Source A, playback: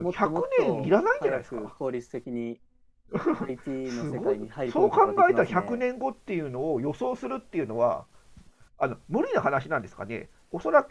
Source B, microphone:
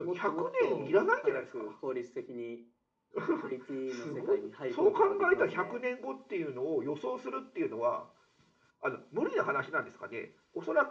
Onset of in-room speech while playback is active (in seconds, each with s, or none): none